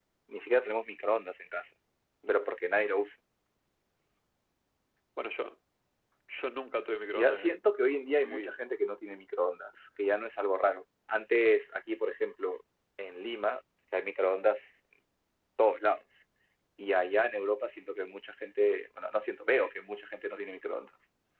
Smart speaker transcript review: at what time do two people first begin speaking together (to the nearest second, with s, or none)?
7 s